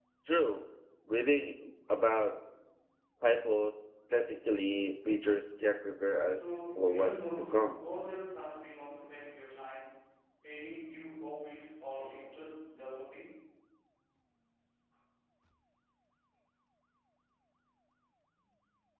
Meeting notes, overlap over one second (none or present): present